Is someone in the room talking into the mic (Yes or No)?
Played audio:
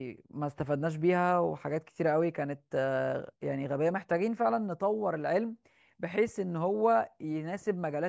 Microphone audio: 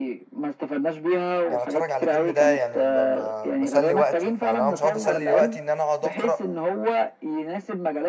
Yes